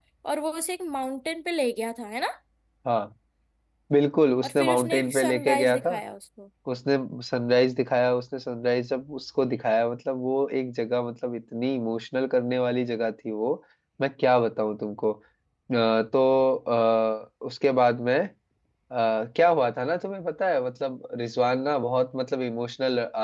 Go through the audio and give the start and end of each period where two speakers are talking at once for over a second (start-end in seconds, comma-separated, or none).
4.4-5.9